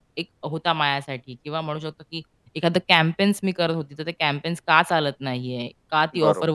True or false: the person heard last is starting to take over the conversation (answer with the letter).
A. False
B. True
A